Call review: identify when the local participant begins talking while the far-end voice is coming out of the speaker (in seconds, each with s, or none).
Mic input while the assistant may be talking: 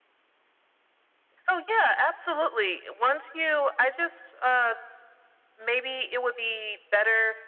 none